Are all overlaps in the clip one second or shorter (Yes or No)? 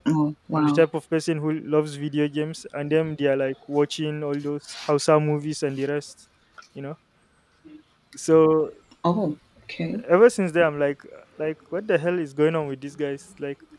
Yes